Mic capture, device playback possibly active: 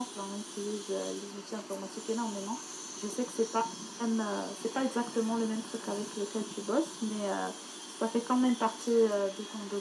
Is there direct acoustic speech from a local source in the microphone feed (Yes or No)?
No